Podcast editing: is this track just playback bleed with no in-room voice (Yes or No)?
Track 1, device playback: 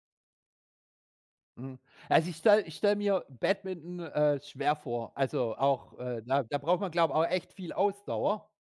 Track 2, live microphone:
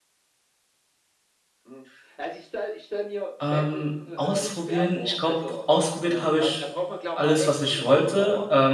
No